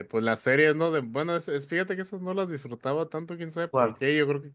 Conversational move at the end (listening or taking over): listening